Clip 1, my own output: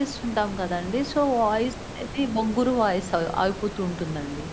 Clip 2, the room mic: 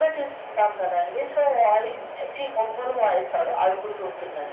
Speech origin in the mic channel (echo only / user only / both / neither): echo only